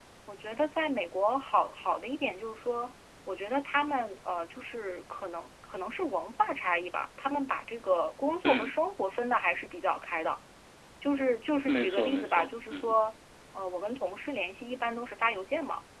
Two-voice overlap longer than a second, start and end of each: 11.7-13.0

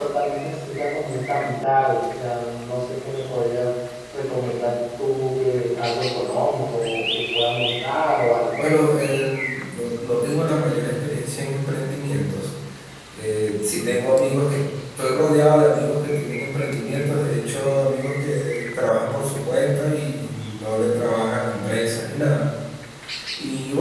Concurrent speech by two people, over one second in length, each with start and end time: none

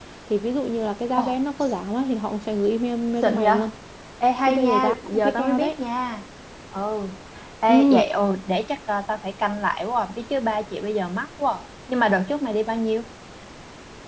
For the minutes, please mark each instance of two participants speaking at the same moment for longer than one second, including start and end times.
4.4-5.8

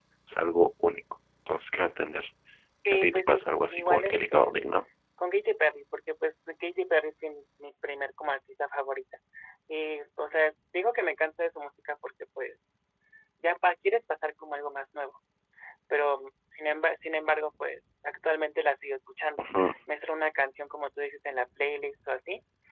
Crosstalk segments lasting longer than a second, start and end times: 2.9-4.5

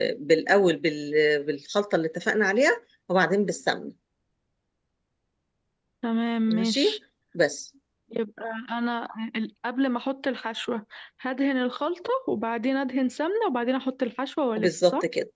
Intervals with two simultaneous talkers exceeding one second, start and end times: none

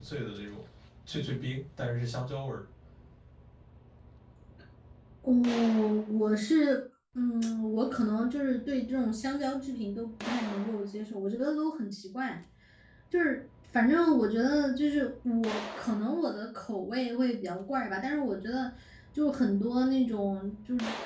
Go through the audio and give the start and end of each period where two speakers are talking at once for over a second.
none

